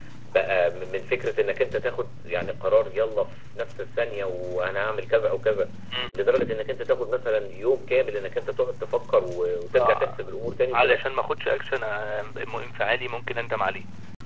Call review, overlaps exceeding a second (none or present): none